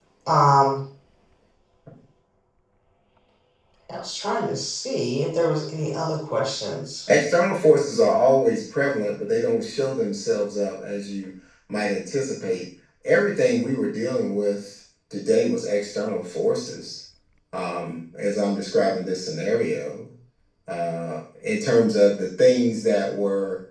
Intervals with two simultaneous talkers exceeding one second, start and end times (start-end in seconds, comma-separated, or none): none